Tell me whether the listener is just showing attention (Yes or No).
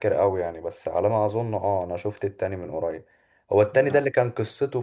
Yes